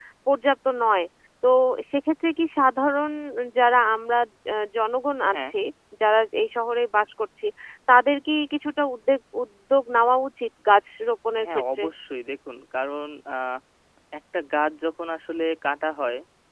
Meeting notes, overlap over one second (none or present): none